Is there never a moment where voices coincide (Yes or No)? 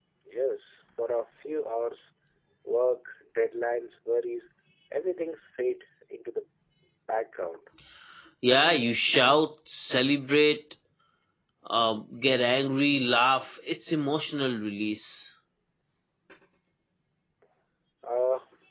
Yes